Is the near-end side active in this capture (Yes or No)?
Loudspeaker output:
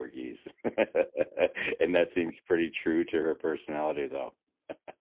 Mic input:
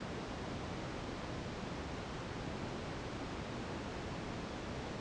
No